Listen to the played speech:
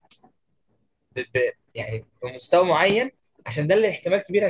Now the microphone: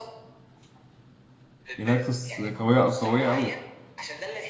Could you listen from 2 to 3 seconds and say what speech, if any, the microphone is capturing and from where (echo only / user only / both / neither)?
both